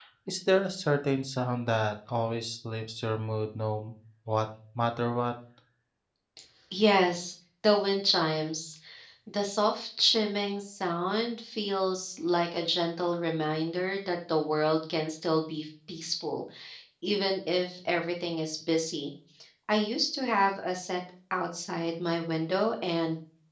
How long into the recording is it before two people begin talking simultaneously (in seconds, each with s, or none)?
none